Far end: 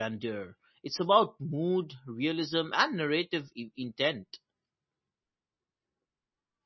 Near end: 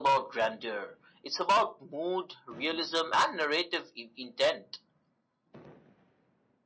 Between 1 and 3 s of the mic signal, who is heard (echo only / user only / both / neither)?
echo only